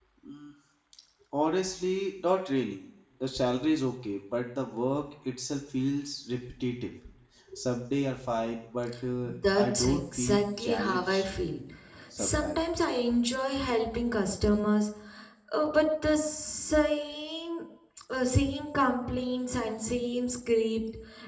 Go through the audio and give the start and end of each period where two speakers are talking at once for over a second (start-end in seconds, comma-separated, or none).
9.5-11.3